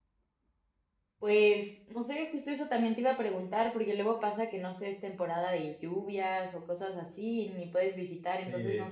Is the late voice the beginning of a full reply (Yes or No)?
Yes